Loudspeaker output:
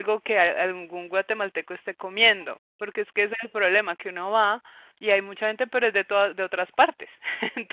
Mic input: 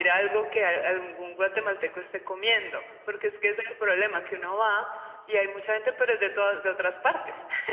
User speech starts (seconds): none

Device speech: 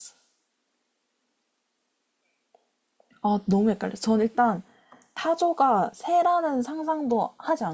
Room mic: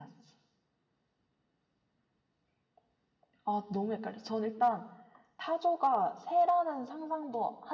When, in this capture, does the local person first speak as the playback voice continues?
none

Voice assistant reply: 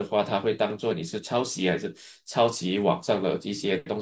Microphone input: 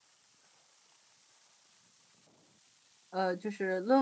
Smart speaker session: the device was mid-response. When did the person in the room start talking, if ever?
3.1 s

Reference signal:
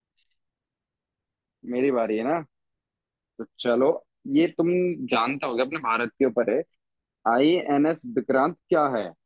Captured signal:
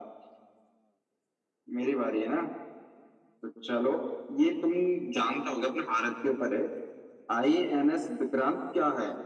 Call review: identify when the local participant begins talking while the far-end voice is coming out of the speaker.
none

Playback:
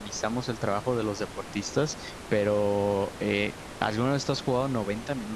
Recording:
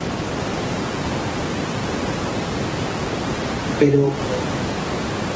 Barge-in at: 3.8 s

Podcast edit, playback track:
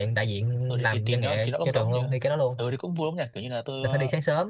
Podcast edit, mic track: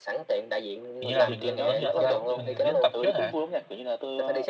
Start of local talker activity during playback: 1.0 s

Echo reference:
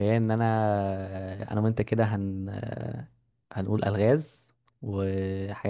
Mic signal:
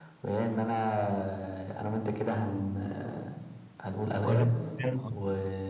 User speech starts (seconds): 4.2 s

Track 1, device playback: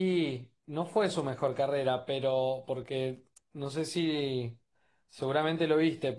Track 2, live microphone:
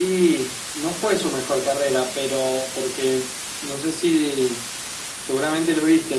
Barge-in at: none

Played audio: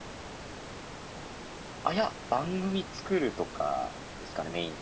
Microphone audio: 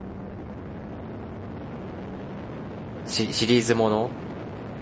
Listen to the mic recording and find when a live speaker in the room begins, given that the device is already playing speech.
3.0 s

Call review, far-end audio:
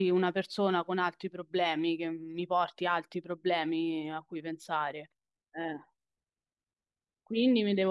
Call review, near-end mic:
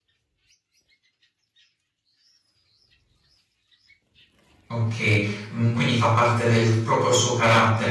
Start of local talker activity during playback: 4.7 s

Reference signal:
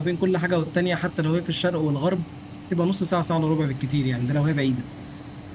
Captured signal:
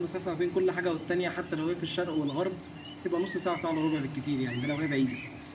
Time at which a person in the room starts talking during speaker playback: none

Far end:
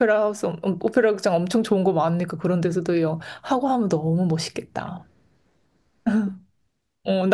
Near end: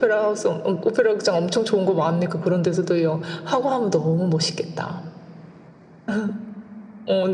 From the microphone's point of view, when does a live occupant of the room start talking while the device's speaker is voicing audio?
none

